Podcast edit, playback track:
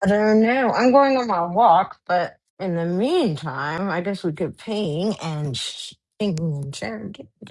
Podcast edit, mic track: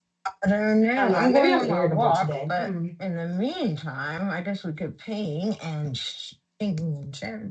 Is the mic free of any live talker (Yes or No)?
No